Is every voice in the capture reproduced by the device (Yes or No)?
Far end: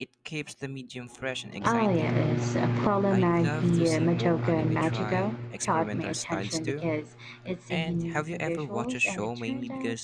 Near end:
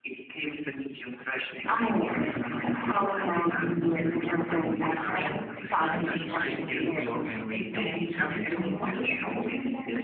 No